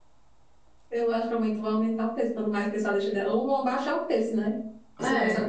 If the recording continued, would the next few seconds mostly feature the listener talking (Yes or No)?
No